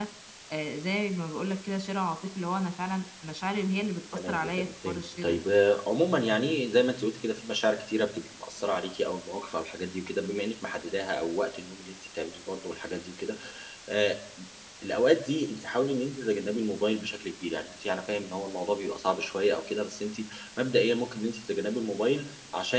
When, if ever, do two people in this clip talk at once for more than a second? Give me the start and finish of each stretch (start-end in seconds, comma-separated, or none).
4.1-5.5